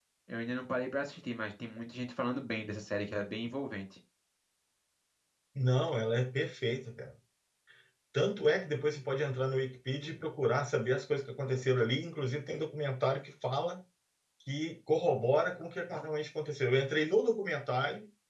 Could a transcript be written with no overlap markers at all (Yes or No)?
Yes